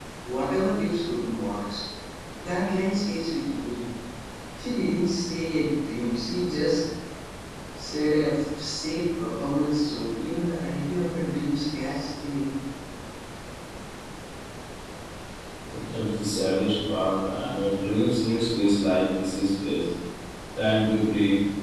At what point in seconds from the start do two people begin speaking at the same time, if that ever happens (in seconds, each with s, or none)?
none